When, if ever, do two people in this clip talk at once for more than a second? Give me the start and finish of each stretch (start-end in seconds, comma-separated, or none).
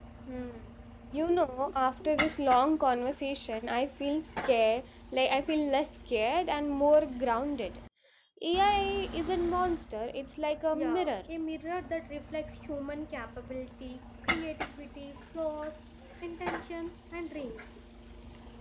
none